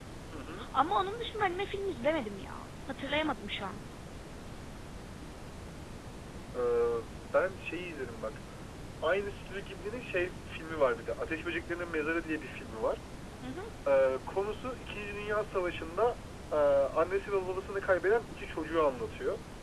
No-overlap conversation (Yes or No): Yes